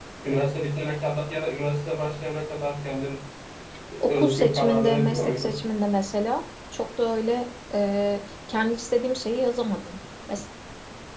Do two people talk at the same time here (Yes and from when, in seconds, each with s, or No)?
Yes, from 4.1 s